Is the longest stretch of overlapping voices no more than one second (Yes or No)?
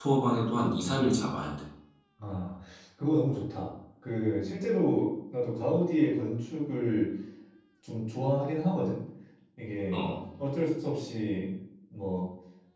Yes